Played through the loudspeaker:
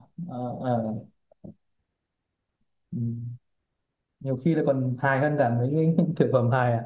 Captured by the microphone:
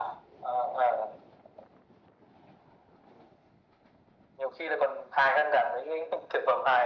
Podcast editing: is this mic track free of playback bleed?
No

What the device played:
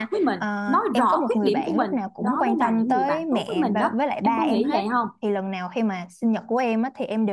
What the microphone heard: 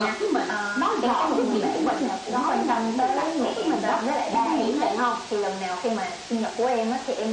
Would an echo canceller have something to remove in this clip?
Yes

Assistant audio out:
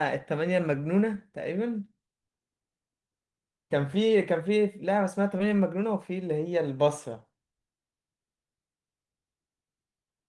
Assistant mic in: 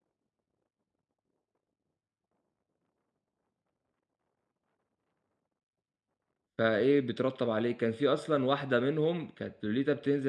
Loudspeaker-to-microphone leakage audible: No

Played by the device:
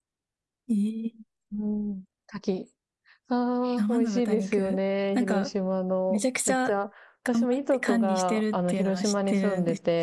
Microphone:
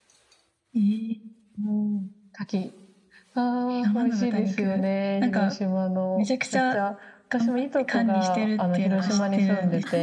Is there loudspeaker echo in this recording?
Yes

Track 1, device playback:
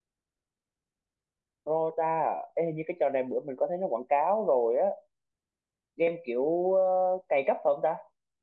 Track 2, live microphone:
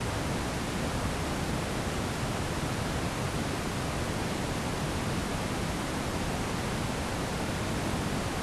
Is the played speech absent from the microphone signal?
Yes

